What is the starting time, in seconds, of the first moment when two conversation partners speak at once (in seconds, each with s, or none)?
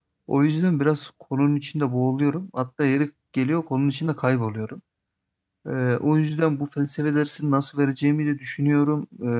none